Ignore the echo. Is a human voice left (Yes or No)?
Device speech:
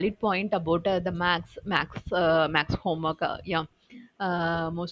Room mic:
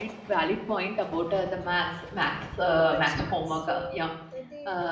Yes